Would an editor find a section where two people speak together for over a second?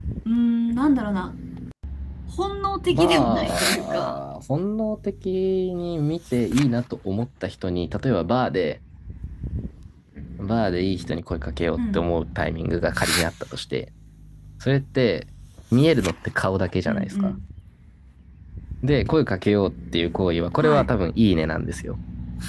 Yes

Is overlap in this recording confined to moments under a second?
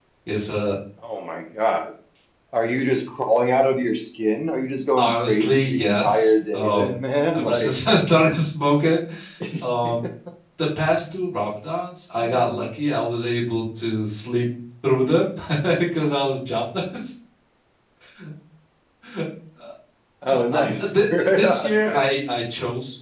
No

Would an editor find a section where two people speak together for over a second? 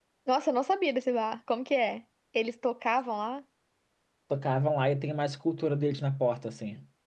No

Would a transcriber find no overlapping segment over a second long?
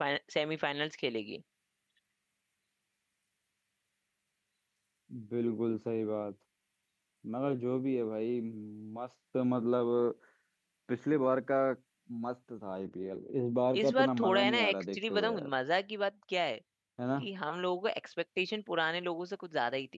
No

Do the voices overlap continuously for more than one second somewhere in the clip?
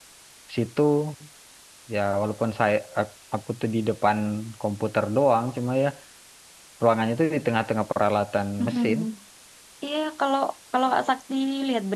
No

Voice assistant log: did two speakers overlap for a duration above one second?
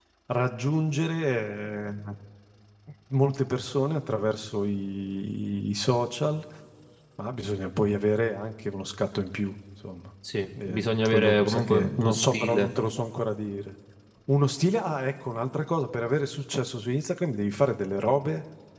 Yes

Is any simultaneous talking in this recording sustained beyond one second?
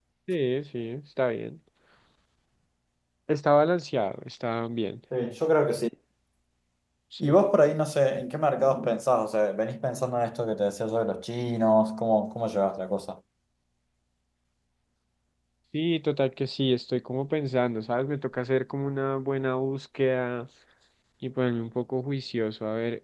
No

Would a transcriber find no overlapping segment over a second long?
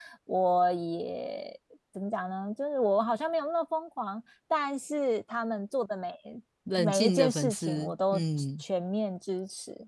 No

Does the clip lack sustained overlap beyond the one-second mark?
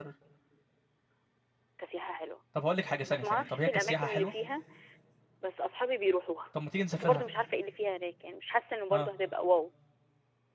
No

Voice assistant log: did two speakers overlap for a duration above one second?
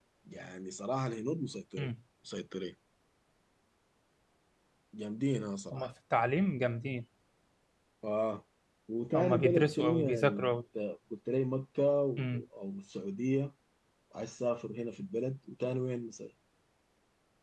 Yes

